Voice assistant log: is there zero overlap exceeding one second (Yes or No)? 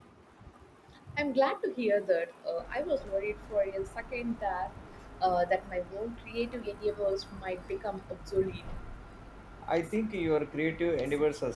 Yes